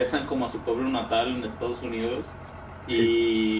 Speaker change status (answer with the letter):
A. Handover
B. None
B